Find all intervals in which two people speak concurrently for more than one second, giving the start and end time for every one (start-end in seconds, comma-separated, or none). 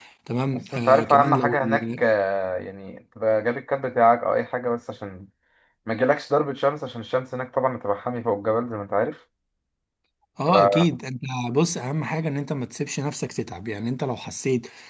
0.7-2.0